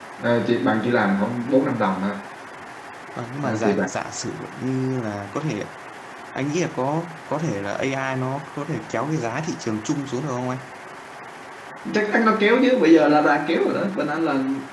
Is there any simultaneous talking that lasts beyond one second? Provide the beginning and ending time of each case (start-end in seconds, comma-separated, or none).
none